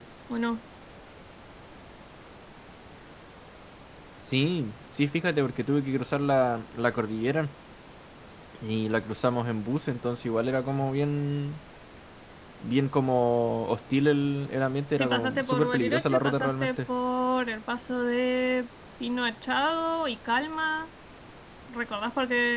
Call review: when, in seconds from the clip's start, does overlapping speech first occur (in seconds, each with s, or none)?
15.0 s